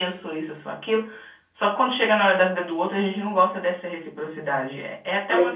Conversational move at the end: listening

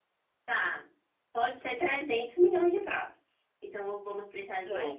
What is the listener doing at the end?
taking over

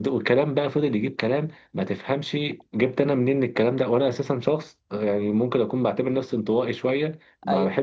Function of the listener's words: listening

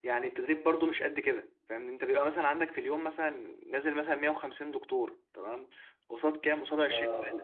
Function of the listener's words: listening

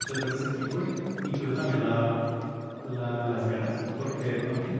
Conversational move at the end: listening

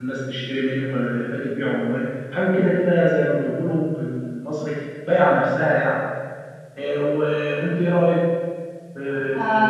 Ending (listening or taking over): taking over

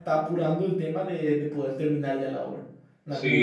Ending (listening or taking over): taking over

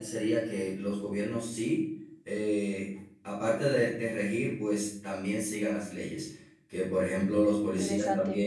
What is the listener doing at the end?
listening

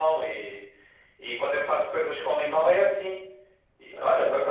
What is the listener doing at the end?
listening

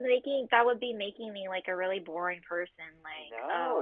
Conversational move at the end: taking over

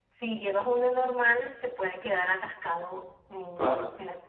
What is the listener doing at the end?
listening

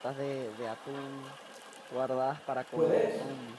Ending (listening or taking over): listening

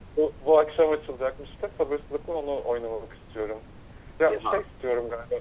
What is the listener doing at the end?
listening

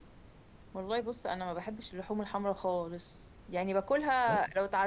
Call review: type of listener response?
listening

